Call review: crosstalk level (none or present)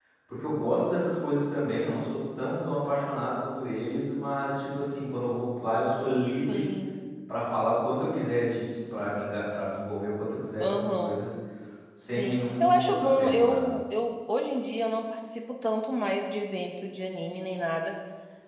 present